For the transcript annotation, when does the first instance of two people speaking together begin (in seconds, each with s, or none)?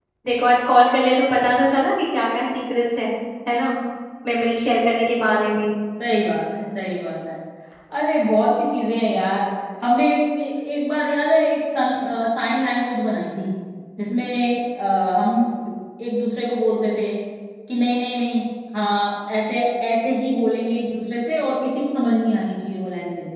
none